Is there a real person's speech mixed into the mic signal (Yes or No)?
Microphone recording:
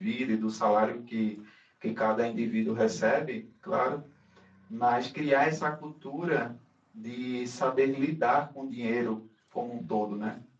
Yes